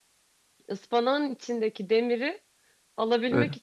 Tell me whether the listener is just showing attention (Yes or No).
Yes